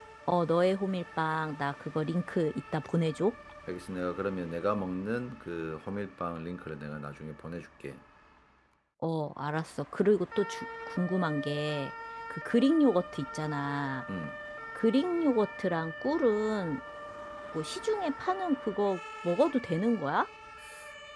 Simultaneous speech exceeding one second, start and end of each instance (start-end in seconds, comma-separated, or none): none